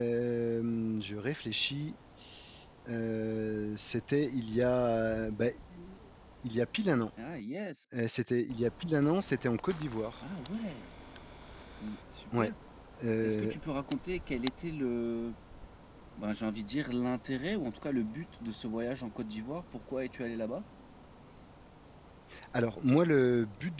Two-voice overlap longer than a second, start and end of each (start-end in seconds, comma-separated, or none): none